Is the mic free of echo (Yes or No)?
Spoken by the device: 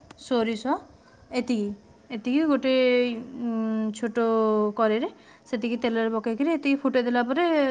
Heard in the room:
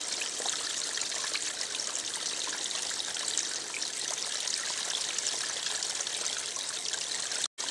Yes